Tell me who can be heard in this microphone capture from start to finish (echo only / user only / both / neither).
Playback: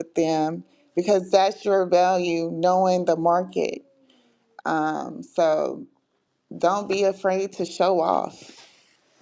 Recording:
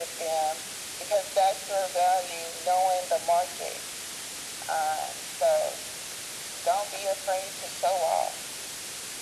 echo only